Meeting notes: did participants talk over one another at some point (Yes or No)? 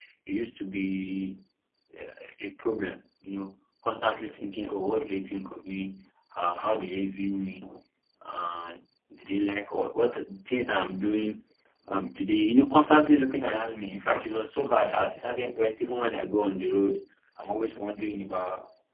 No